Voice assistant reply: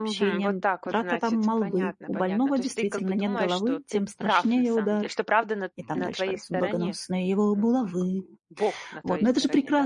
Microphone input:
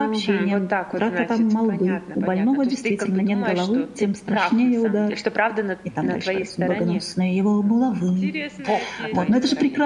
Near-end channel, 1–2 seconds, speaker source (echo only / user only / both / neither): echo only